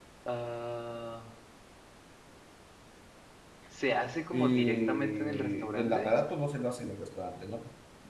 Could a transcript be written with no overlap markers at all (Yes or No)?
No